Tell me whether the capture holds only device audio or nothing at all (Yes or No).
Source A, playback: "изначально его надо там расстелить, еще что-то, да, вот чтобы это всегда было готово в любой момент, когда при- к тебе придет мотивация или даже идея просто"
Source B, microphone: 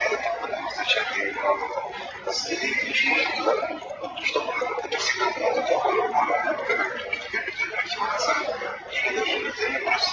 Yes